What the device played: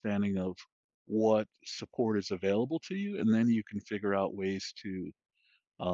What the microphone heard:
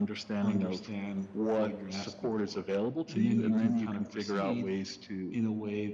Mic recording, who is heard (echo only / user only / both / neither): both